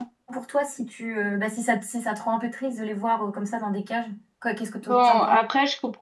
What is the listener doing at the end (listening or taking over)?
taking over